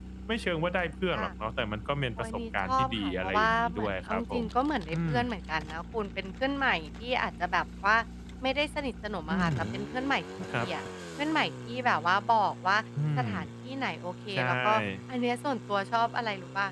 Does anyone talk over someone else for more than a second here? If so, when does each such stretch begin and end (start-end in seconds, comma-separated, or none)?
2.2-4.4